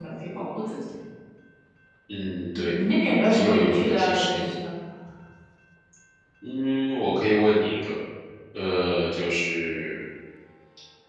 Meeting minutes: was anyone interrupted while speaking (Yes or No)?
Yes